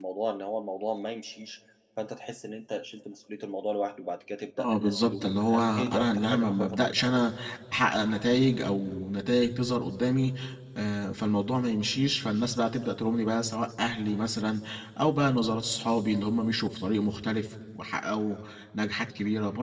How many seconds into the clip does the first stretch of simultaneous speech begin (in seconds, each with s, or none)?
4.6 s